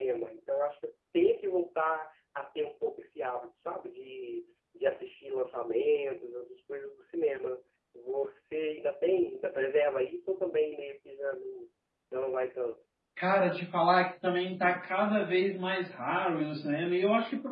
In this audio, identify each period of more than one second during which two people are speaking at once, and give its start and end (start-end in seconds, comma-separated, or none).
none